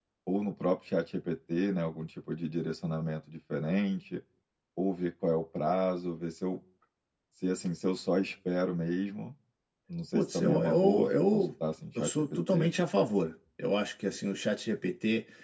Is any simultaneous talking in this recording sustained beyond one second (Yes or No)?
Yes